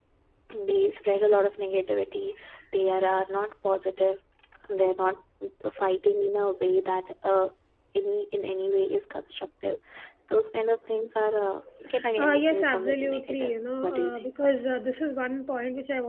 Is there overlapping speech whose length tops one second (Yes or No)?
Yes